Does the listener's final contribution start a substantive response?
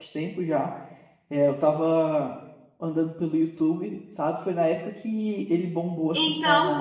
No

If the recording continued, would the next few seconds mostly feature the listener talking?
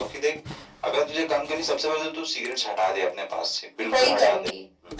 Yes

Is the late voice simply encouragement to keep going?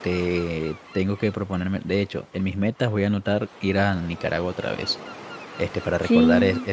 Yes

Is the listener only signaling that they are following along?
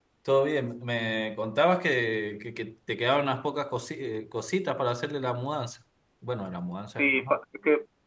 No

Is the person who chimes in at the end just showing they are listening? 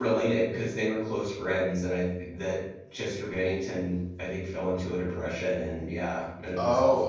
No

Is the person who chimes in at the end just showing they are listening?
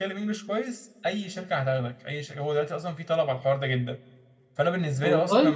Yes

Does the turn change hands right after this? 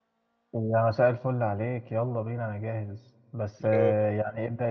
No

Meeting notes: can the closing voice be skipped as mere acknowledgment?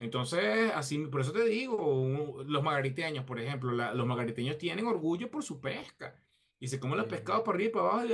Yes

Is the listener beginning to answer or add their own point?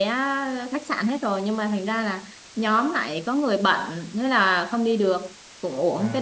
No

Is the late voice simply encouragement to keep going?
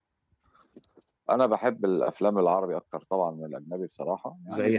Yes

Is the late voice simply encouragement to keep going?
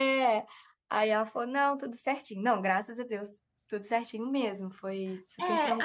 No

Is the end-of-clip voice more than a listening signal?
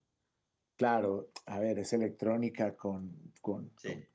No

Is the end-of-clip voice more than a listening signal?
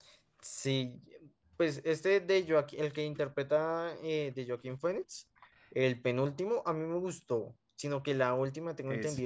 No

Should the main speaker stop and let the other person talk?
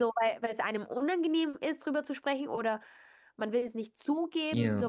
Yes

